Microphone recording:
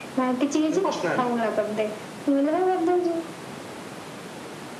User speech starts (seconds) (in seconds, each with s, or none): 0.7 s